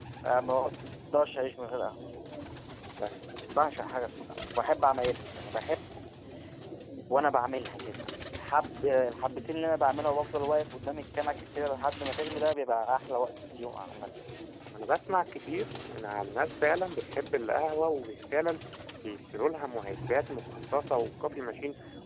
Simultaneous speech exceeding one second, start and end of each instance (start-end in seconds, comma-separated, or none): none